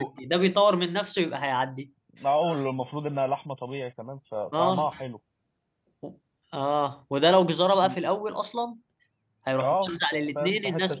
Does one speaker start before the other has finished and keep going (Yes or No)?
Yes